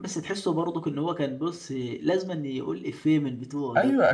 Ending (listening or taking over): taking over